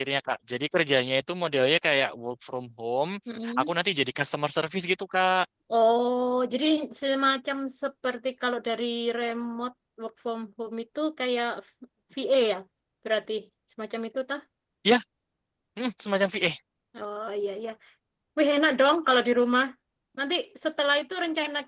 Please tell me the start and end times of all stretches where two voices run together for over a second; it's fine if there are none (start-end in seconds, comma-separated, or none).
none